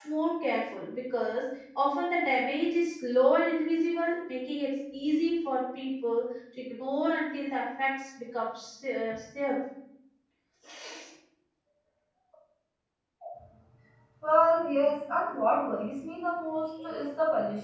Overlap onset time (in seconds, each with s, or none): none